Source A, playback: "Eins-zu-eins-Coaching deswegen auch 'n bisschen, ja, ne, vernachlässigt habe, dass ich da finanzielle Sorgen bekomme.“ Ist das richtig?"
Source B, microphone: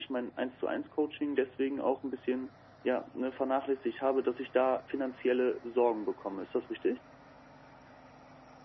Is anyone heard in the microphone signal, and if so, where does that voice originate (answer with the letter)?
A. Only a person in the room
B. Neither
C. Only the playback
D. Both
C